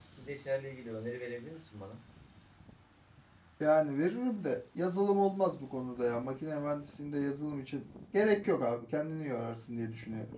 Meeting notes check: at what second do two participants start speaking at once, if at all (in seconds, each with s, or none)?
none